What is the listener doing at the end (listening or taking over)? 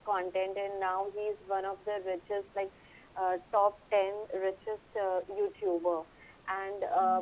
listening